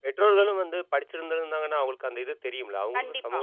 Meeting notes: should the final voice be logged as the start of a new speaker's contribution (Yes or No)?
Yes